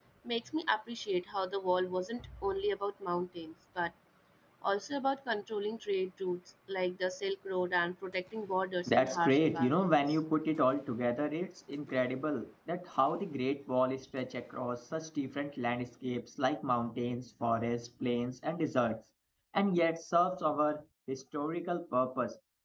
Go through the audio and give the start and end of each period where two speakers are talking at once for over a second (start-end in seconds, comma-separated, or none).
8.9-10.2